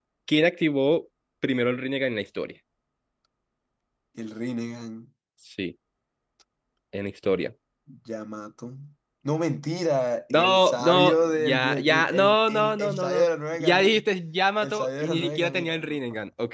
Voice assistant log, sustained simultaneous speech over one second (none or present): present